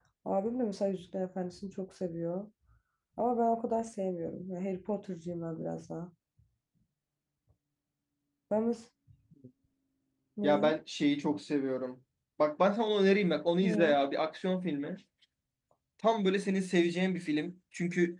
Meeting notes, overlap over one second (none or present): none